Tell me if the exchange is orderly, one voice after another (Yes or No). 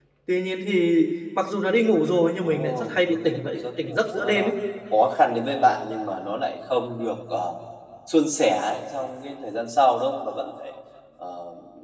No